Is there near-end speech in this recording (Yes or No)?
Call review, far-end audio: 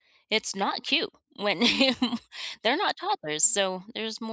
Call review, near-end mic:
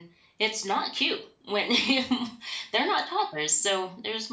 No